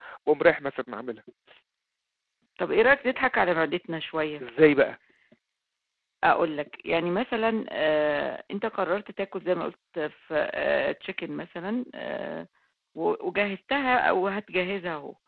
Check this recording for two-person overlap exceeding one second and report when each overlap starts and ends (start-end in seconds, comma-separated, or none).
none